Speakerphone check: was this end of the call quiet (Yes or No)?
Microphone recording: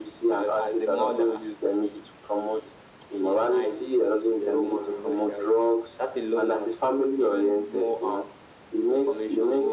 Yes